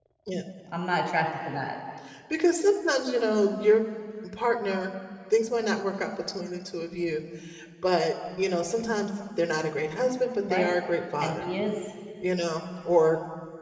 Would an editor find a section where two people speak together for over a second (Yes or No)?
No